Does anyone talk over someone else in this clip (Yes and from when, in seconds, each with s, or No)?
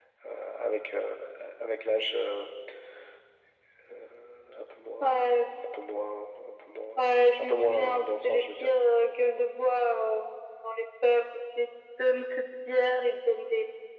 Yes, from 7.4 s